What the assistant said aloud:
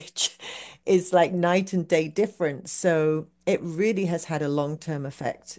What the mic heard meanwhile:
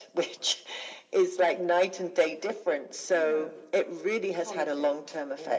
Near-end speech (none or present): present